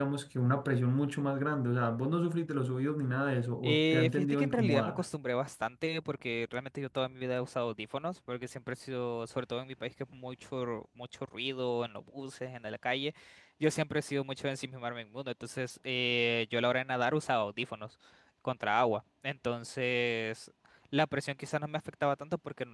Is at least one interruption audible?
Yes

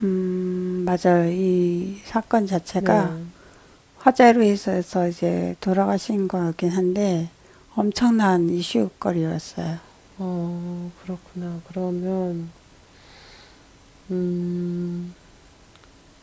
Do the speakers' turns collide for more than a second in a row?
No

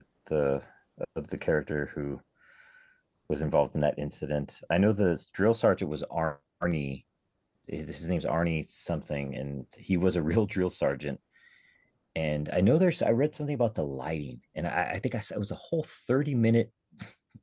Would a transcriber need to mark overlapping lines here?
No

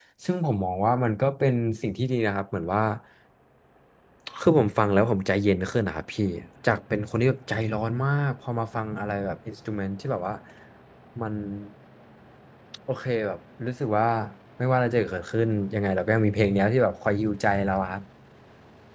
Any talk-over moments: No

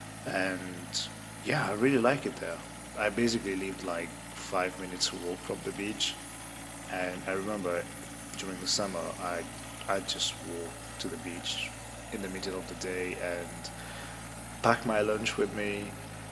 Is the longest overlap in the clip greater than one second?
No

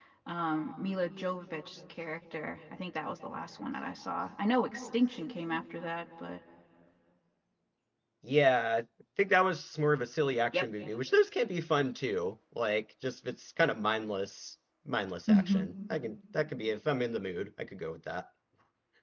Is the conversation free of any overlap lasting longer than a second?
Yes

